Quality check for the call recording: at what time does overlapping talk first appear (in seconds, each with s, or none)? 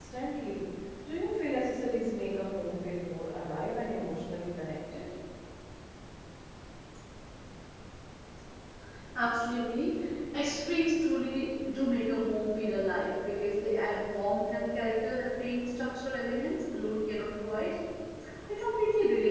none